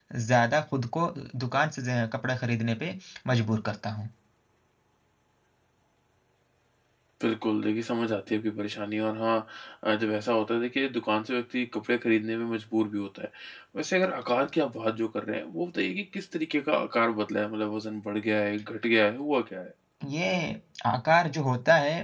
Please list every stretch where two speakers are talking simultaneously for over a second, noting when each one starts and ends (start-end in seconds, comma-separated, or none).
none